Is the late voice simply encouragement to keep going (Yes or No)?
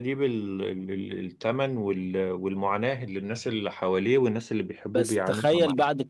No